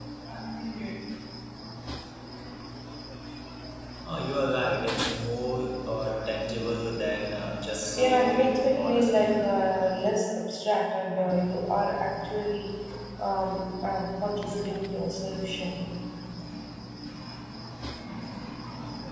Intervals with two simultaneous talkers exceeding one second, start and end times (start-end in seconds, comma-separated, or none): 8.0-9.4